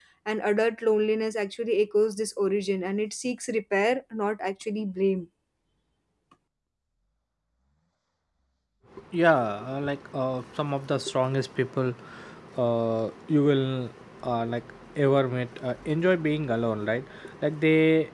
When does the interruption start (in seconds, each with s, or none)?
none